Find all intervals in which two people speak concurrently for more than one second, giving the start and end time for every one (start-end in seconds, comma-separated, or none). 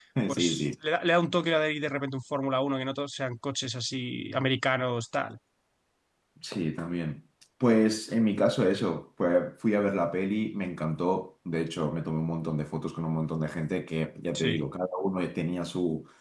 none